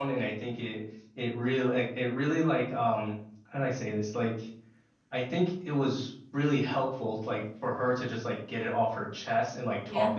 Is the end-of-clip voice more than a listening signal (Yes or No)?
No